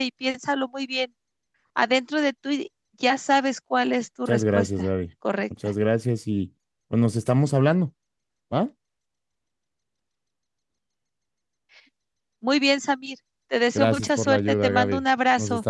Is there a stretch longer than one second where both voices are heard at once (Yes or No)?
Yes